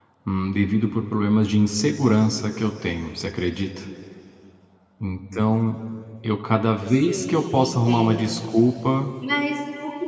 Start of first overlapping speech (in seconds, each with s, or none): 6.9 s